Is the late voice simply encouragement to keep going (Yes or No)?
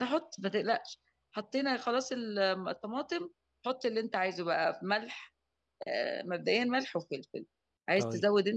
Yes